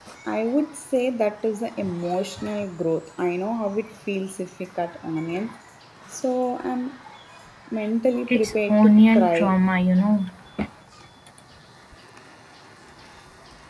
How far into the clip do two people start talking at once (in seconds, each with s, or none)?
8.3 s